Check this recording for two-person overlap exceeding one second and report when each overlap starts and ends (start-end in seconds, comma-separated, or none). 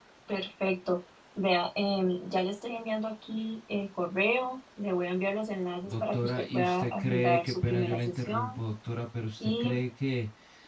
5.8-8.6